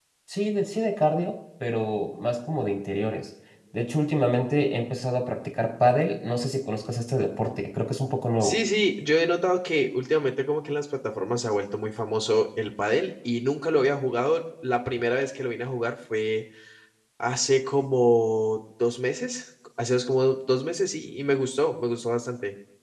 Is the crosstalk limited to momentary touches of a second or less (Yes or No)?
Yes